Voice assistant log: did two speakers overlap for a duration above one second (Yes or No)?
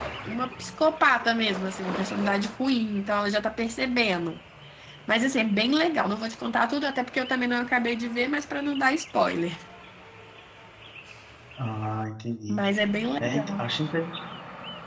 No